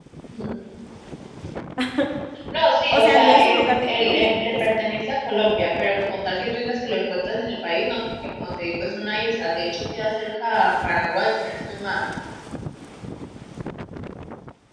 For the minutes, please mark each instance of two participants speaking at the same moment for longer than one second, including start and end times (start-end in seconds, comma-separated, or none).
2.9-4.7